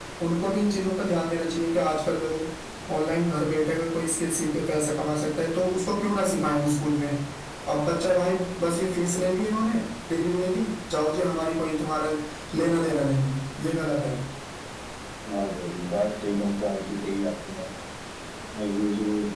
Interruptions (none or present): none